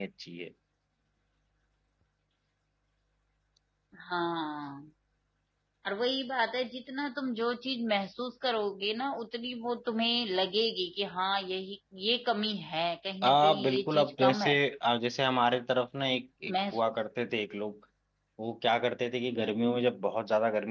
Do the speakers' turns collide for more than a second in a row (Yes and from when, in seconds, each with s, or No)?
Yes, from 13.2 s